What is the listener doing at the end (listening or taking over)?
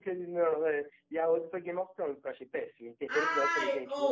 taking over